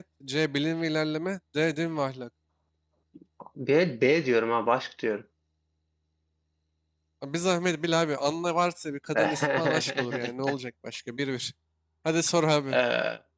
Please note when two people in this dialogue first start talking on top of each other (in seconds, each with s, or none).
9.1 s